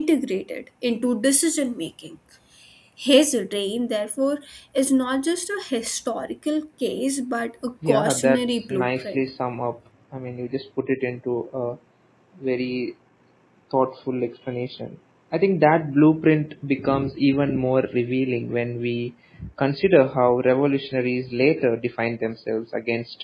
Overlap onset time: 7.8 s

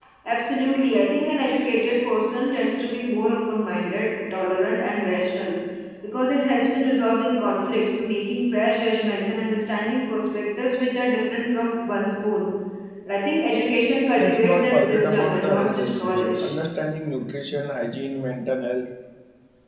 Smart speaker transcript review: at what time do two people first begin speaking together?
14.2 s

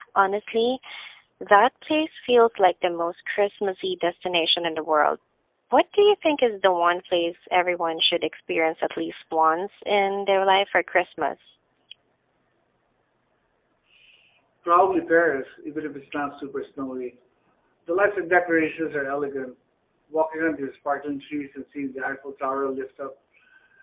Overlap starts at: none

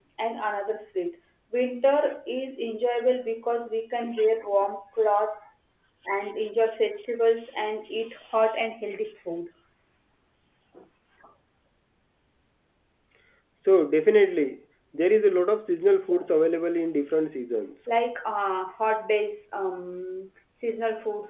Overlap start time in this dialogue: 15.9 s

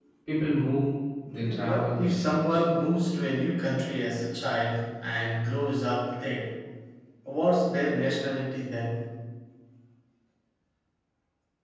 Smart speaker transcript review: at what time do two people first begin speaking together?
1.3 s

